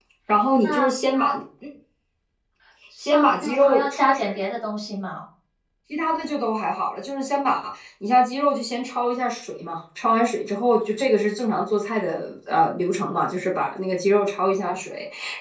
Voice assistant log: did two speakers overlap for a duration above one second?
Yes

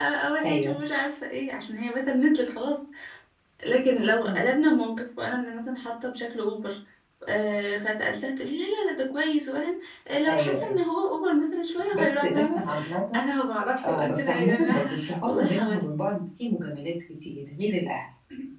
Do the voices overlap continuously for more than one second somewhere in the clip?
Yes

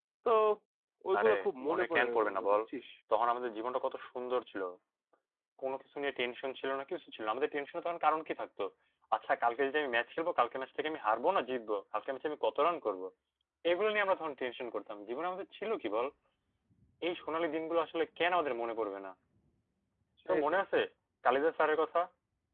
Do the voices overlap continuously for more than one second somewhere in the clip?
Yes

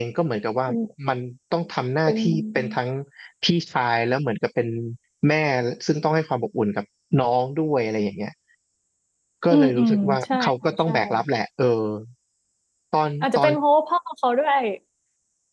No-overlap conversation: No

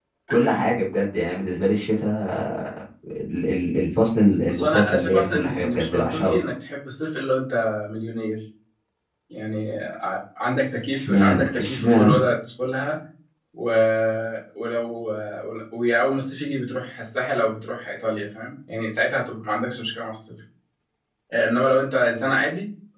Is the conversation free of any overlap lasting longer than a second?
No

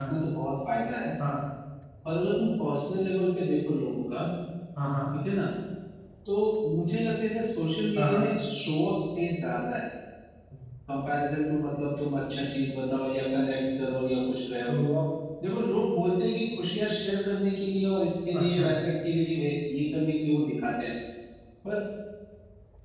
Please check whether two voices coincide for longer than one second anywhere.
No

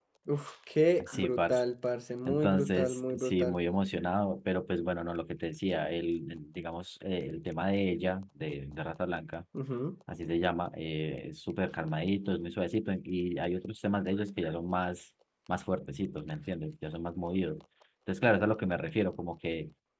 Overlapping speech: Yes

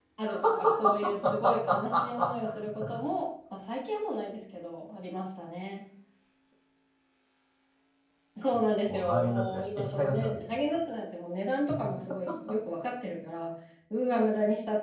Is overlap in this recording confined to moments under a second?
No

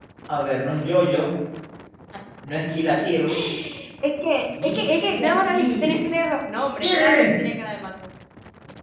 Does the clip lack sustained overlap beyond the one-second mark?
No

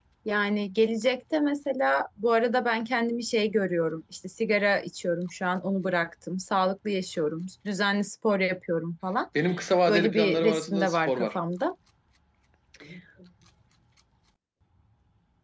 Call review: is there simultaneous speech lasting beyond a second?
Yes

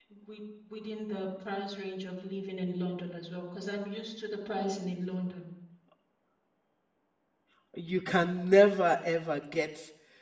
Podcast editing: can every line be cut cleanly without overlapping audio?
Yes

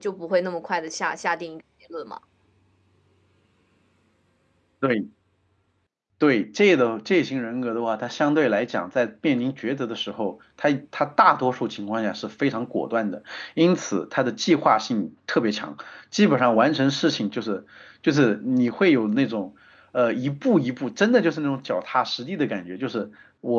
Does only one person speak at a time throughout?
Yes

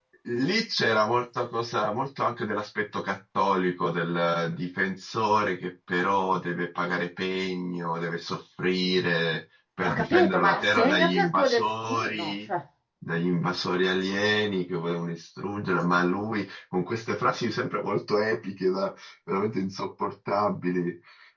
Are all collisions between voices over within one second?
No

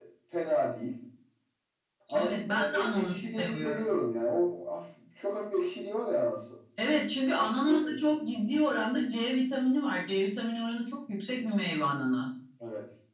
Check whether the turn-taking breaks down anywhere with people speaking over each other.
Yes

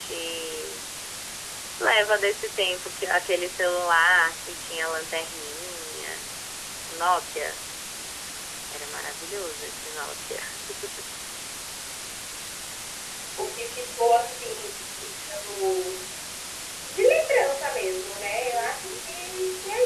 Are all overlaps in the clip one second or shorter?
Yes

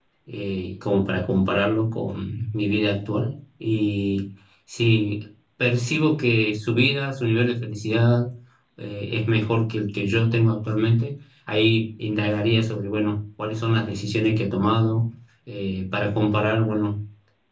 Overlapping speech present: No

